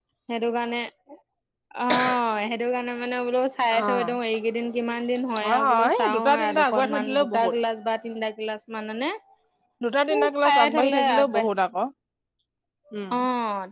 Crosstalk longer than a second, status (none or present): present